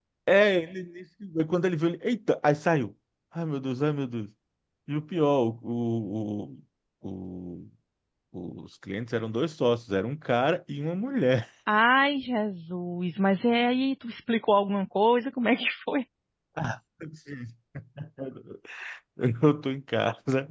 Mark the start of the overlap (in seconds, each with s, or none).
none